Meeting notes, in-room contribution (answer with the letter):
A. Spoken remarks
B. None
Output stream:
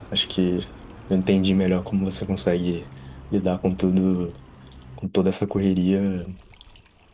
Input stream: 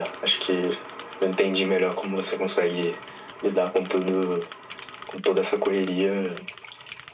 B